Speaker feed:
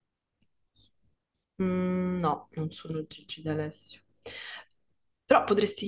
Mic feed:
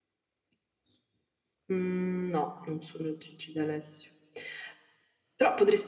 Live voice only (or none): none